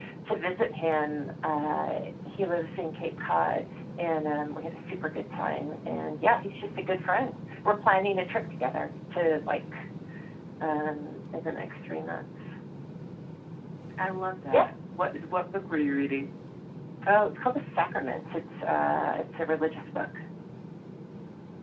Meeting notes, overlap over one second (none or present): none